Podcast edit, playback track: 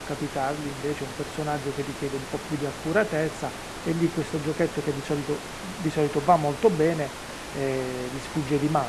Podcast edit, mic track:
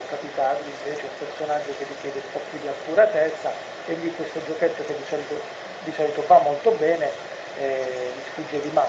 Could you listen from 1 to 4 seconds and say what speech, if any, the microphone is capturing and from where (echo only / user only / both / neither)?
echo only